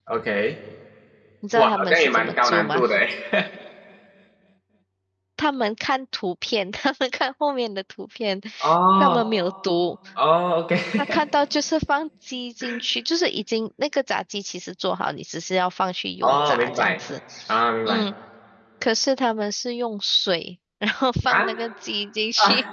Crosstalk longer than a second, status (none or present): present